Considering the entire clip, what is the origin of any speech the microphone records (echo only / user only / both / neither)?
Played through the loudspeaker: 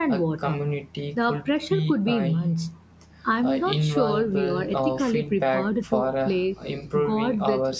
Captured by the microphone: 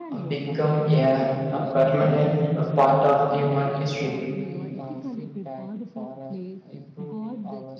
both